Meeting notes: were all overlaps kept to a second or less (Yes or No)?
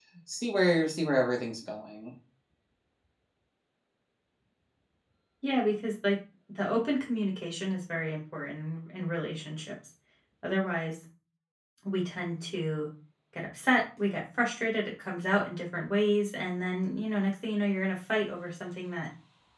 Yes